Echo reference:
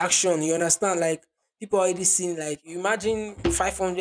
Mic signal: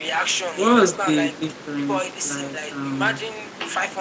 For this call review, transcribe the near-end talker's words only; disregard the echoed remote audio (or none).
what was the difference like um